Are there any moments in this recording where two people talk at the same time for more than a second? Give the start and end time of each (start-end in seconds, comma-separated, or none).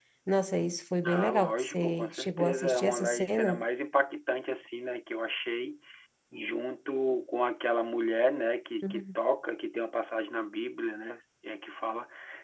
1.0-3.6